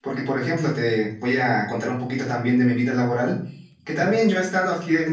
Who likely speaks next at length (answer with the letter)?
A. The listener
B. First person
B